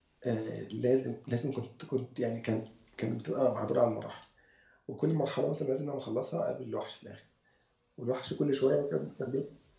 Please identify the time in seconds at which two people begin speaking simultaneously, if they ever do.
none

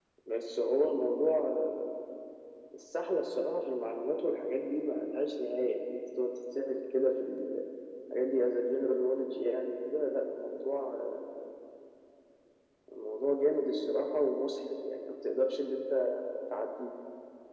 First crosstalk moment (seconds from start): none

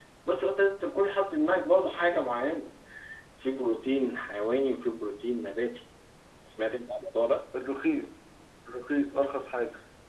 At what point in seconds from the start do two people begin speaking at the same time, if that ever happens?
none

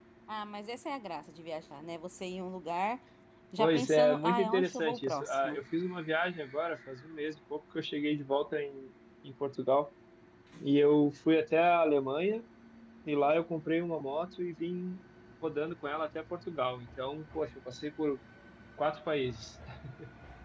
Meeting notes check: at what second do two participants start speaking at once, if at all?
3.6 s

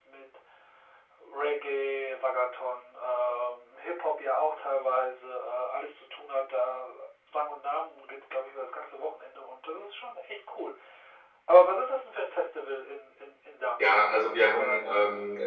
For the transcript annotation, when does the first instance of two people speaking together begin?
13.8 s

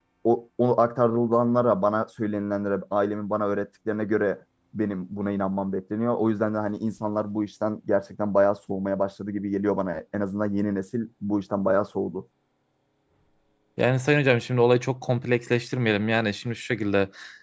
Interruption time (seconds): none

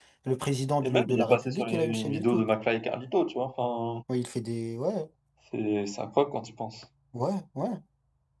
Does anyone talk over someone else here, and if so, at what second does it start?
0.8 s

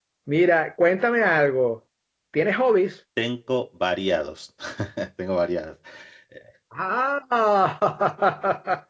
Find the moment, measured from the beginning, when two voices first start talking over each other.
none

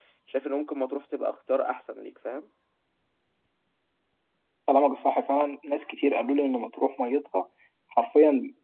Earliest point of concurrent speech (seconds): none

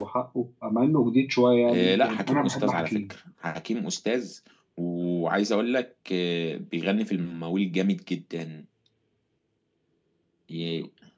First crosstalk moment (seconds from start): 1.7 s

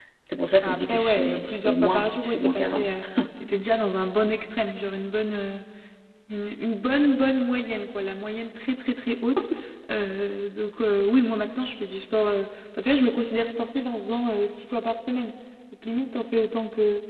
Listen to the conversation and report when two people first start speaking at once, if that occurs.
0.6 s

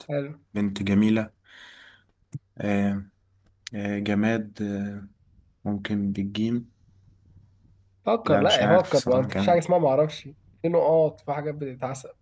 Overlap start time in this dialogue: 8.2 s

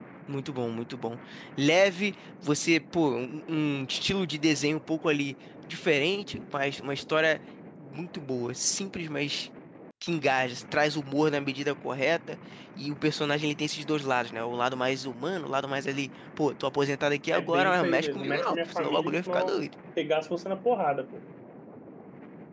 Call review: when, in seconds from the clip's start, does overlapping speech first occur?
17.3 s

